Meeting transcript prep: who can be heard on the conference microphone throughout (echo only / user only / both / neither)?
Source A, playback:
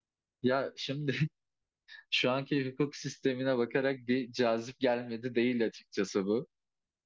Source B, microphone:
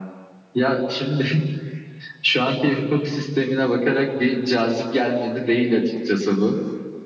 echo only